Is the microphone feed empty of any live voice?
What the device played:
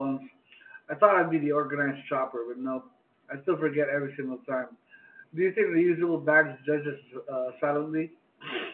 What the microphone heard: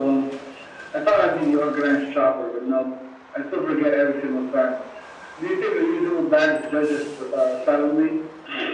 Yes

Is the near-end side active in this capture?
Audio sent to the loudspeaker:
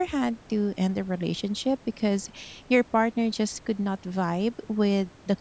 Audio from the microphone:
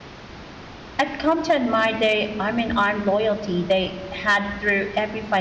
Yes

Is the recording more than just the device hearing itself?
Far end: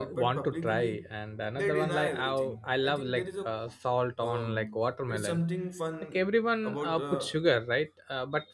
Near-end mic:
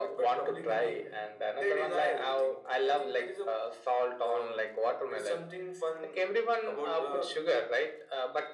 Yes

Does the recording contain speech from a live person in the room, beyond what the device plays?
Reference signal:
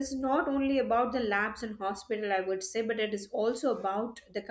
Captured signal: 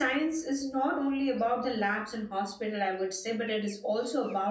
No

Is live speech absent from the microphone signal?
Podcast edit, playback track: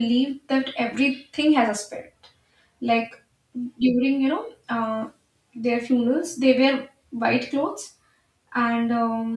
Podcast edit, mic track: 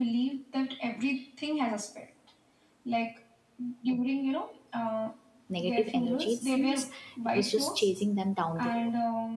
No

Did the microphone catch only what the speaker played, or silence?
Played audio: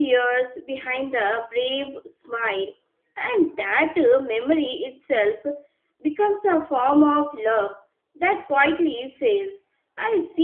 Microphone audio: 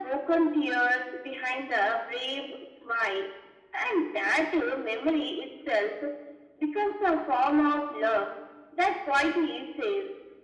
Yes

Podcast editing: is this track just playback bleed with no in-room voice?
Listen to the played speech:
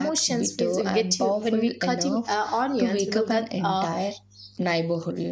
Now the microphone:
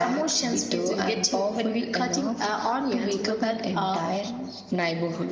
No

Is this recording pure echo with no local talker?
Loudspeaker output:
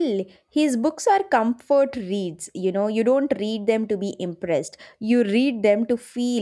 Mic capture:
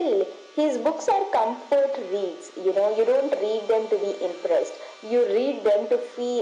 Yes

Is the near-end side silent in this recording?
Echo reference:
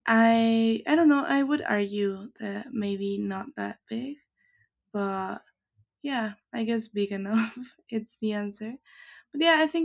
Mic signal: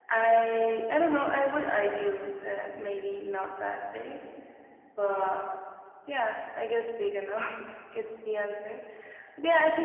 Yes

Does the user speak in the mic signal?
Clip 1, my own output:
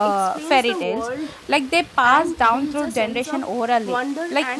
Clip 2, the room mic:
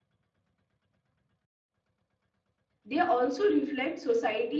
Yes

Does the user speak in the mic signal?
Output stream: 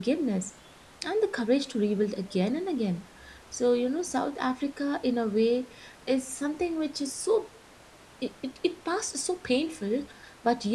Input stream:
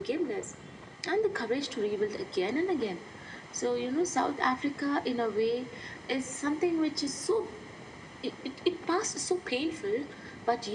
No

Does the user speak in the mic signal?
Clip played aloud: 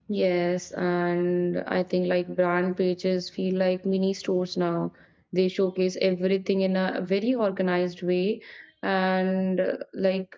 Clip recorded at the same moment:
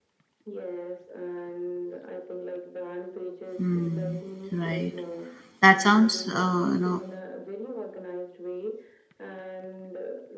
Yes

